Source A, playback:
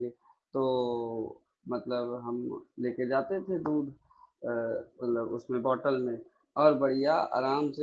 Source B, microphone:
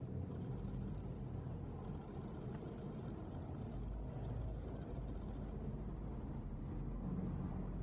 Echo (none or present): none